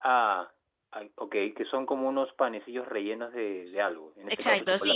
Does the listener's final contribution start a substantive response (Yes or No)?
Yes